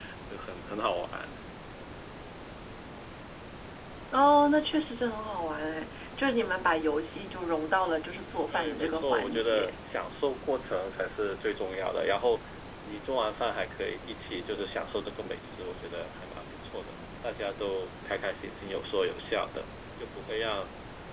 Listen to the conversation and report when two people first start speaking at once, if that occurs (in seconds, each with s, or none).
8.5 s